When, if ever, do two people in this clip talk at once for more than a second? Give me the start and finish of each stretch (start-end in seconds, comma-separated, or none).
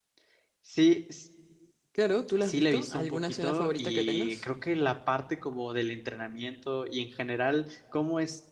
2.4-4.5